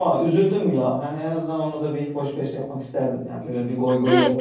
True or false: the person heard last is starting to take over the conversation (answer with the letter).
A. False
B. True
B